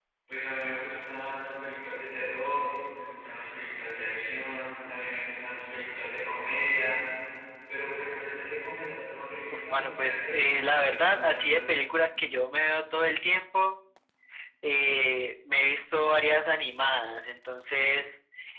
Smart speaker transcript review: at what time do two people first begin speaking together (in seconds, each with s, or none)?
9.5 s